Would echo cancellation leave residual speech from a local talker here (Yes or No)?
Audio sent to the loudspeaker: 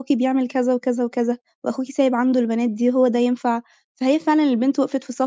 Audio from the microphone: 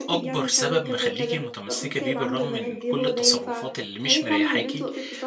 Yes